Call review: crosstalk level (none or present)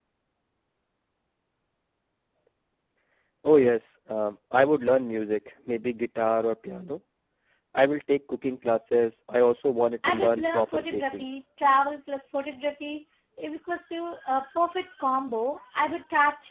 present